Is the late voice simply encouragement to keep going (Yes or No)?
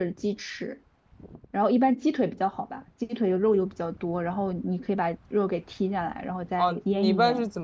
No